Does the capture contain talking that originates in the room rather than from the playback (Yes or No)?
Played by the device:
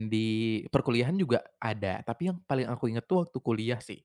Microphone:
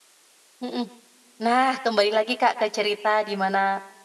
Yes